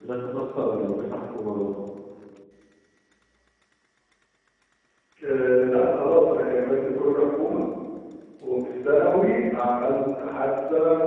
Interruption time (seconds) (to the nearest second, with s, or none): none